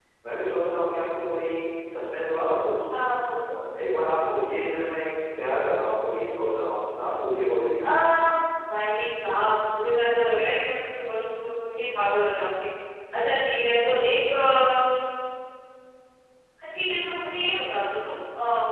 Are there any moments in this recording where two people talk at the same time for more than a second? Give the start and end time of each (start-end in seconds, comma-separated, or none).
none